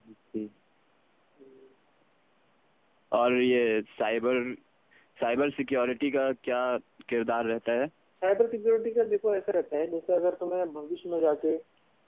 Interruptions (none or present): none